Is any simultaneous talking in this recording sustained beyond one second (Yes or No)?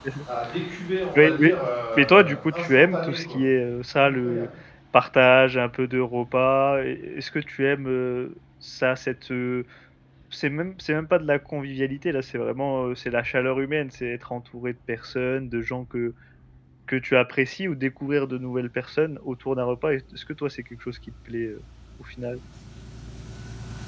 Yes